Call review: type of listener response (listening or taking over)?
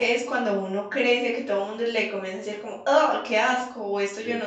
listening